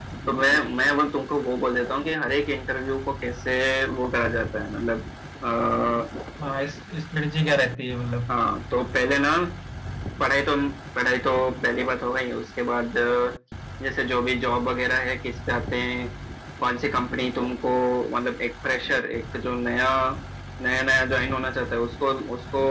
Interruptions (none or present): none